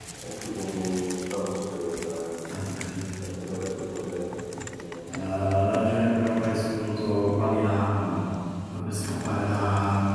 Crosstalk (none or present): none